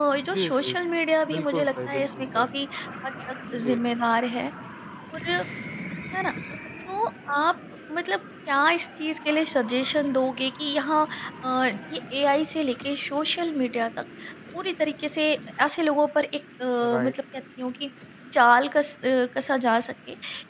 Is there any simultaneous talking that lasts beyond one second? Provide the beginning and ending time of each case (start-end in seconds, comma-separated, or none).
1.3-2.5